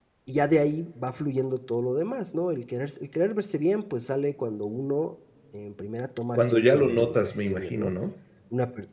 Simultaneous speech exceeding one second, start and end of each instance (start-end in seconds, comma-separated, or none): 6.4-7.9